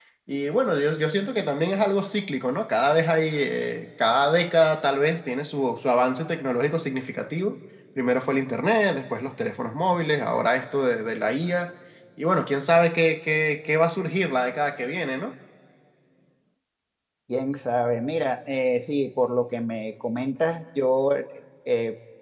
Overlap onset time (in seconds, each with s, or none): none